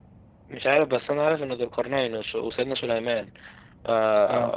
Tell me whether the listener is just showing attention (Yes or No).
Yes